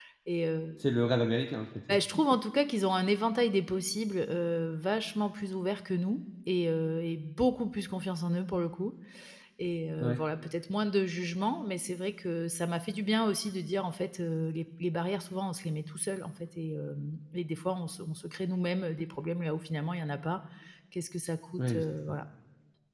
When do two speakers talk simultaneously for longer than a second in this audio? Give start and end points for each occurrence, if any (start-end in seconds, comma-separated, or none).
none